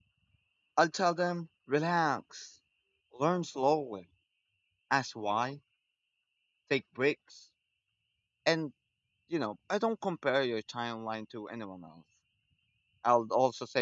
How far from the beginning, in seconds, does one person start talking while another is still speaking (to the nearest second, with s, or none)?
none